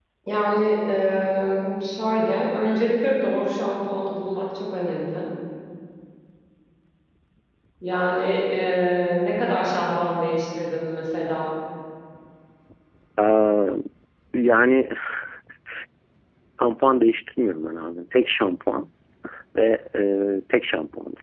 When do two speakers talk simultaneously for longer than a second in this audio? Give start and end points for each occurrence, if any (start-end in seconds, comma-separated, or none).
none